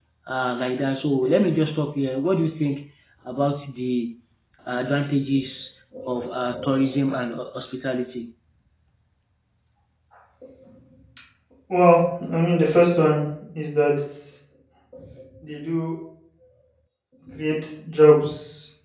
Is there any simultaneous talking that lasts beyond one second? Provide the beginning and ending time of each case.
none

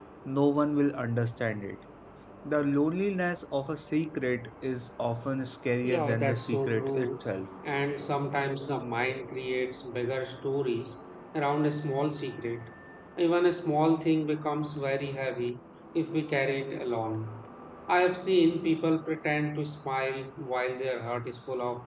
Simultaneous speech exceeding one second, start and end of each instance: 5.8-7.1

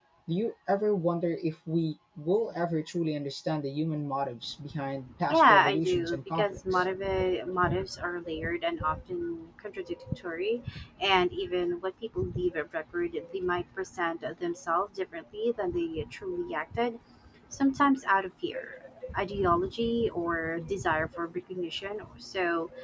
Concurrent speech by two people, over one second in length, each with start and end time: 5.3-6.8

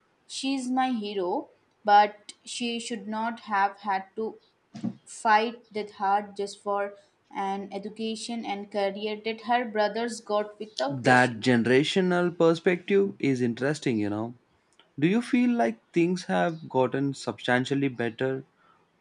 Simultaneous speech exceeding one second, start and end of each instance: none

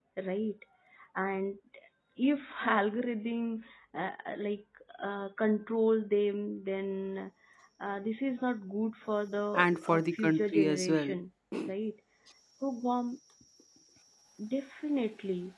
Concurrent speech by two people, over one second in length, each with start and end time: 9.8-11.2

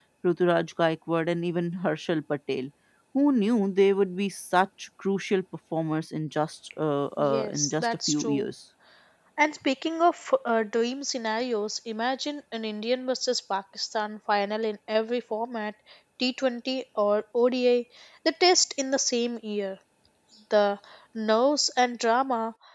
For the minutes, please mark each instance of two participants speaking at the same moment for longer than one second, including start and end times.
7.2-8.5

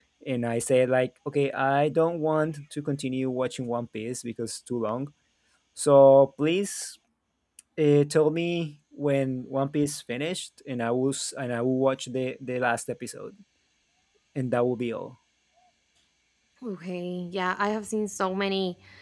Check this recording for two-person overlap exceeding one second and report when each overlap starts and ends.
none

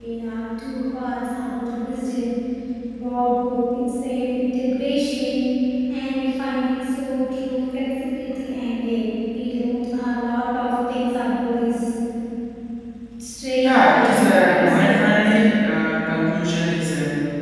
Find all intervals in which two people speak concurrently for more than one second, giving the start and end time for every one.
13.6-15.3

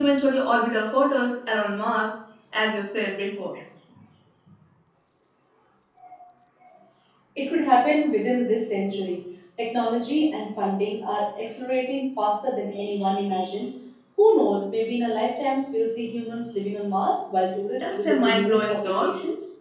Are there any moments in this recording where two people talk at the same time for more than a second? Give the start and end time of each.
17.8-19.1

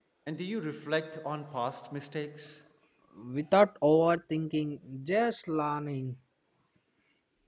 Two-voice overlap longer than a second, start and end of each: none

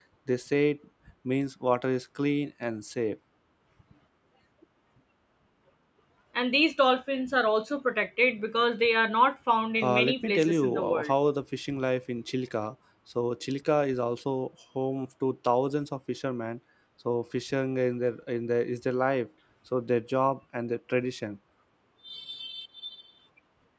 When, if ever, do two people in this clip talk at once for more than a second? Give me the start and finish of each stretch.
9.8-11.1

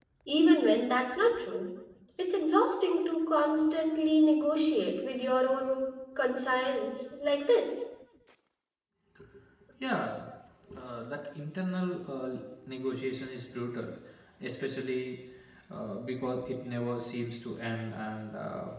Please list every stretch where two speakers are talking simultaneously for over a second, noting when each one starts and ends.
none

